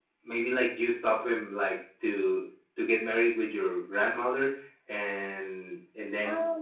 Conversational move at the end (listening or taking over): listening